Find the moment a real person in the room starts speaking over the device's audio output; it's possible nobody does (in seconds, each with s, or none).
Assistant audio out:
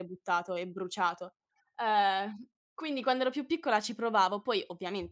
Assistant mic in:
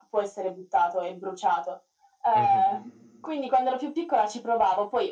2.3 s